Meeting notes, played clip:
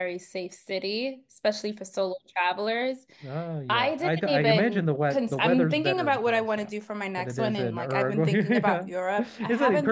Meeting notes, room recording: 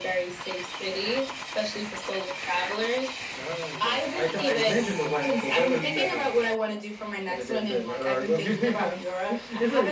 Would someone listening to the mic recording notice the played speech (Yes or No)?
Yes